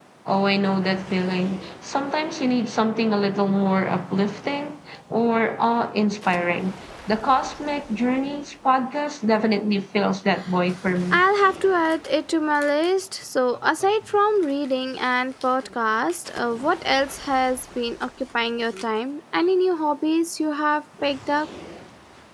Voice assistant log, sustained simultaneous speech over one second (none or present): none